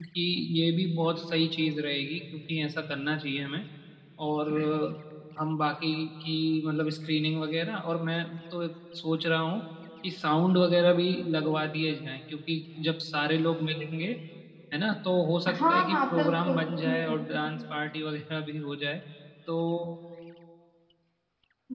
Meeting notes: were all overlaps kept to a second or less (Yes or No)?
No